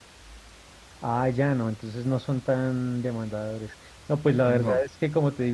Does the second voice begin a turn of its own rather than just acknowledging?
No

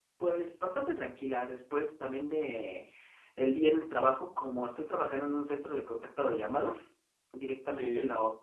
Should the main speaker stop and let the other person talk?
No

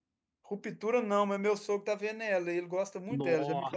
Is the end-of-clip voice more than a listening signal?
Yes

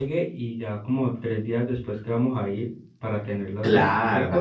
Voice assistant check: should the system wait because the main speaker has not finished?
No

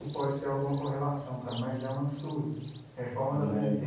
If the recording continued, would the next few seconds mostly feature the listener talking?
No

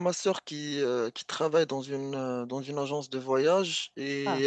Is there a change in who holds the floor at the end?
No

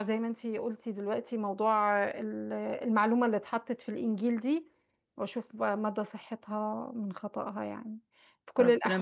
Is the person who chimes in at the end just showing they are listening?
Yes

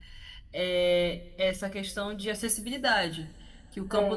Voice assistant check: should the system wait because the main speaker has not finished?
Yes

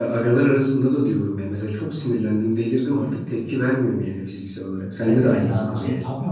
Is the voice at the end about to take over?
Yes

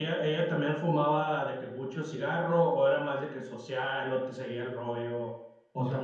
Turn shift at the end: Yes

